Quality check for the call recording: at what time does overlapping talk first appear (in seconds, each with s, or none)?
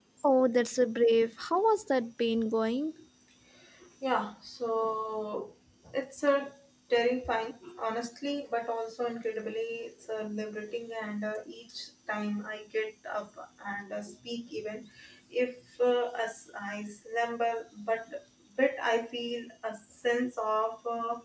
none